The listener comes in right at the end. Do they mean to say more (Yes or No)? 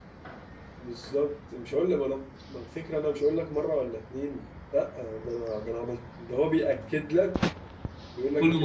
No